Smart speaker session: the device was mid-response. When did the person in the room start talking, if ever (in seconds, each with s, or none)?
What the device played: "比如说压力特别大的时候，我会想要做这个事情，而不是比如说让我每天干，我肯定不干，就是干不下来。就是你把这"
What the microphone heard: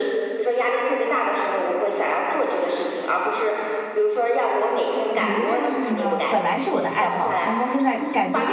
5.1 s